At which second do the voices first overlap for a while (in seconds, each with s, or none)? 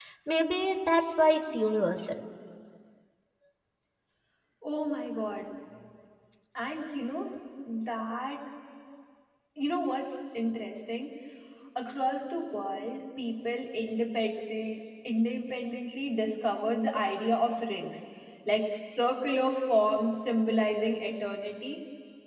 none